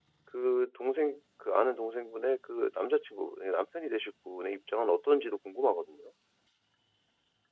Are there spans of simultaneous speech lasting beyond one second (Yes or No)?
No